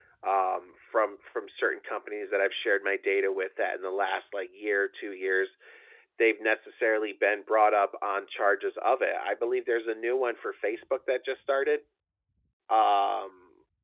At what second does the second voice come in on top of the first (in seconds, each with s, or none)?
none